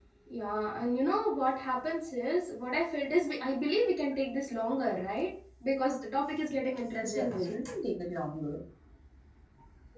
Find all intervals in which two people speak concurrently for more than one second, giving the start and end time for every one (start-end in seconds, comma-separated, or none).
none